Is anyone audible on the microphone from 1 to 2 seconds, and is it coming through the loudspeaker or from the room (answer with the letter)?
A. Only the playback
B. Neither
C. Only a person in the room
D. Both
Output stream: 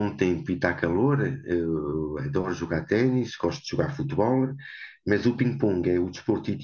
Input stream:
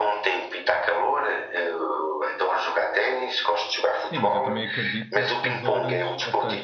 A